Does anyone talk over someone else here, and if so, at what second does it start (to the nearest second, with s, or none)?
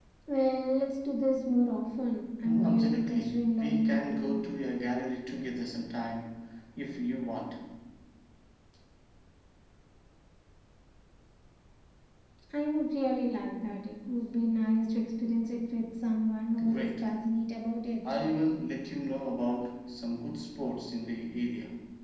2 s